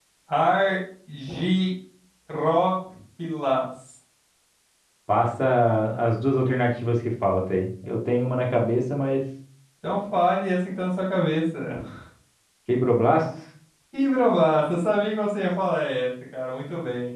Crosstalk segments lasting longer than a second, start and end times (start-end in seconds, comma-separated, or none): none